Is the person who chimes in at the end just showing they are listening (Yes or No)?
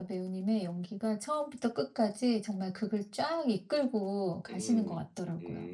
No